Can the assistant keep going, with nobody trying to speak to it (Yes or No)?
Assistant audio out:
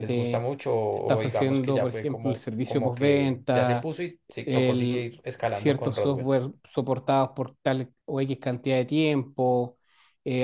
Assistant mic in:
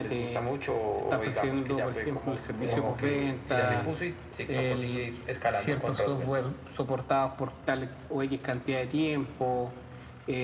No